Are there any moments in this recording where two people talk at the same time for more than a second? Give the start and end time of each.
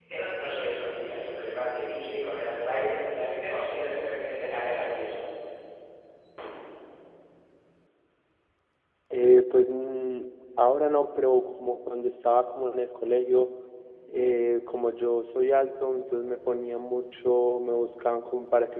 none

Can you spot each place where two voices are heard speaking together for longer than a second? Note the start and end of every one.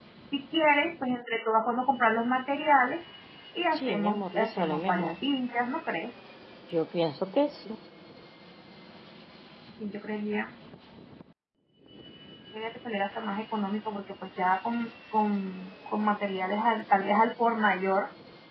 3.7-5.2

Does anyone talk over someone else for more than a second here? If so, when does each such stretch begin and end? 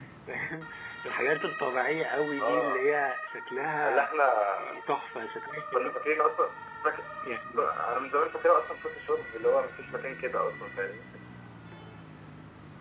none

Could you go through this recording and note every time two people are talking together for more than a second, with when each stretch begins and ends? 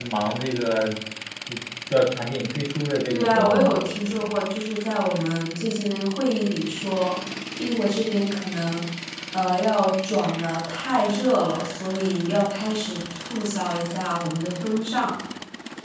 3.1-4.3

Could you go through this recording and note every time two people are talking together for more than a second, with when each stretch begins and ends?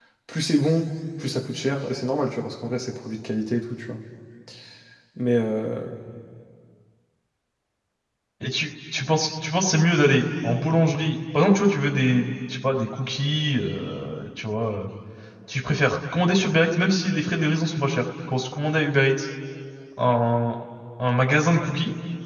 none

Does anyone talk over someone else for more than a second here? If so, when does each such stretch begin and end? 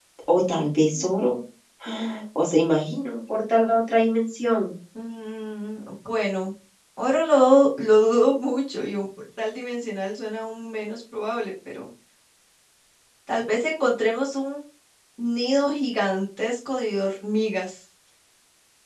none

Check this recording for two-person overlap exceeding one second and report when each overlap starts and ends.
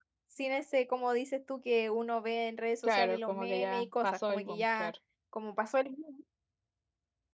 2.8-4.9

